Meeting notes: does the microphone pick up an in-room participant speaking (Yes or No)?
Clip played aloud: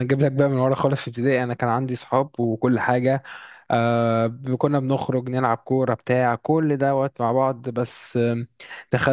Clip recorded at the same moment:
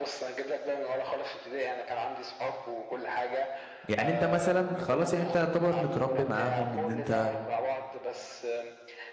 Yes